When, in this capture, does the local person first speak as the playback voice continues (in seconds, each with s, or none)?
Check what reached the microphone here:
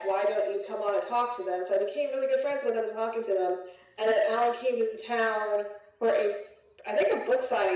none